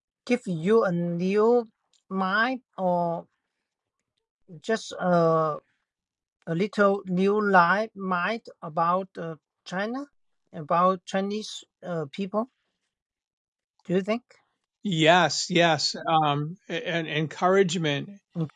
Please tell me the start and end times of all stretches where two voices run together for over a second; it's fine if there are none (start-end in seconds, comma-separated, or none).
none